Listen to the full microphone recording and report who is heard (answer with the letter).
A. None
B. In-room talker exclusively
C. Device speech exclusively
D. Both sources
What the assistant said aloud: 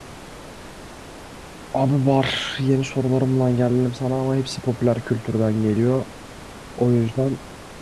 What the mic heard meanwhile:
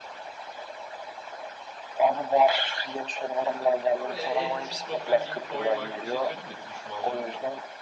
D